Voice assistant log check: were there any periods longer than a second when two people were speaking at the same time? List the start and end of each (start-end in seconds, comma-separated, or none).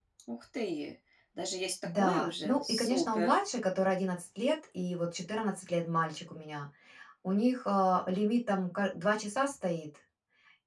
1.9-3.4